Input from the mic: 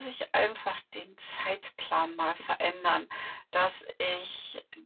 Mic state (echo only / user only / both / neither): echo only